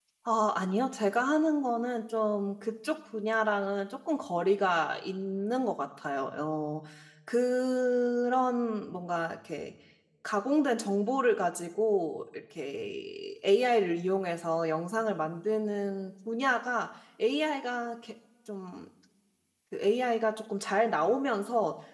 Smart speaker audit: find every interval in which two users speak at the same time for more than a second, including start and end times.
none

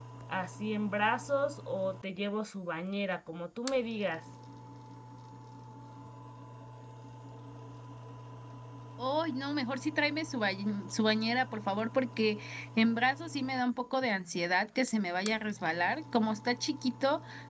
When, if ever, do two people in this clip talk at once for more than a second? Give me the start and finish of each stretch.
none

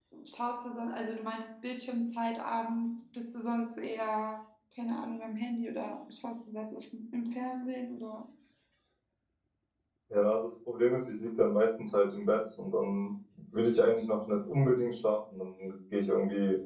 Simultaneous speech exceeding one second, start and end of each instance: none

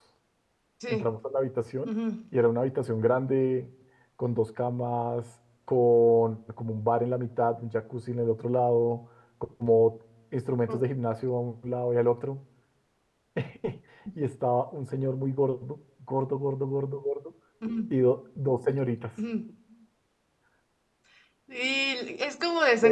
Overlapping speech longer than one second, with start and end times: none

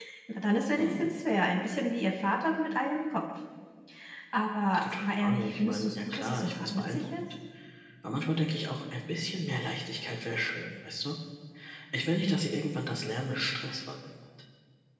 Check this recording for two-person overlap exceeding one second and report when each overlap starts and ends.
4.8-7.2

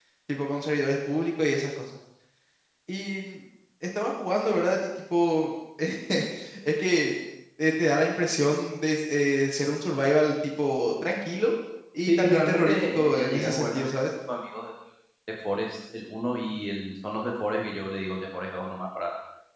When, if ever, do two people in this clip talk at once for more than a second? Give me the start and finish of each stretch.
12.1-14.0

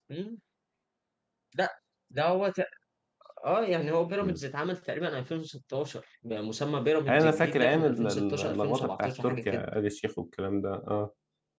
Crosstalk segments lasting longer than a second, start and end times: 7.1-9.7

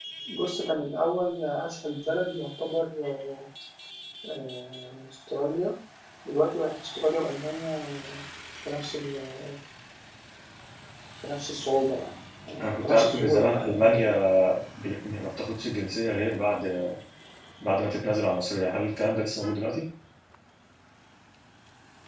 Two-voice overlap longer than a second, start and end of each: 12.6-14.1

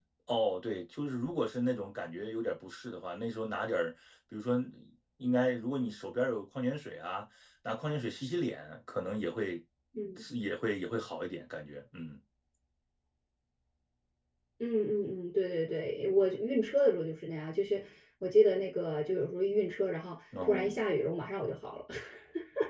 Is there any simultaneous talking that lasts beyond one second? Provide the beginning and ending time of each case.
none

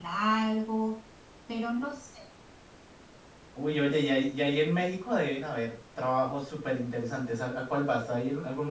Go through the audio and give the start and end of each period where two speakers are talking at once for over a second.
none

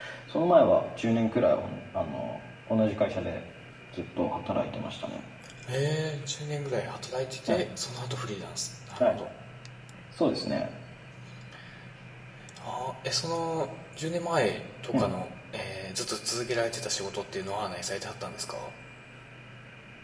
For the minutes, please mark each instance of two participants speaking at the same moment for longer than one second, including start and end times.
none

